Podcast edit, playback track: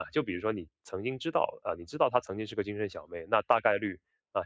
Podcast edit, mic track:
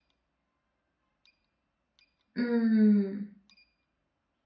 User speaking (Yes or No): Yes